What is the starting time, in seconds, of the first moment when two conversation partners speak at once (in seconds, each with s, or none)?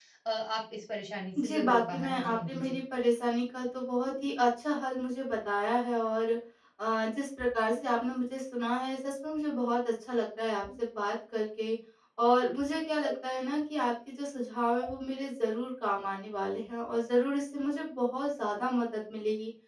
1.4 s